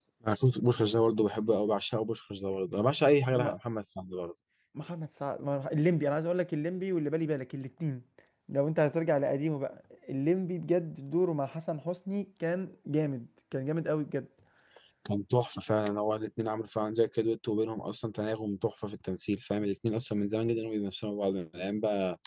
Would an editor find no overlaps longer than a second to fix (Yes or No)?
Yes